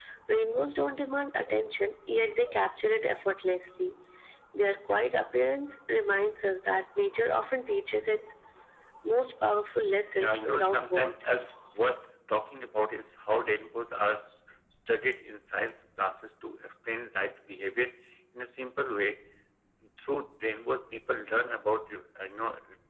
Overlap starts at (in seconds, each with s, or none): 10.2 s